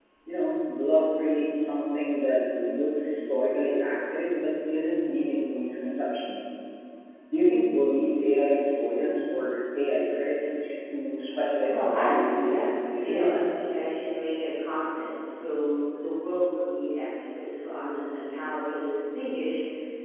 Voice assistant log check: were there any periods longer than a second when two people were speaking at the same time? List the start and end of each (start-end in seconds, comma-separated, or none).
11.6-13.3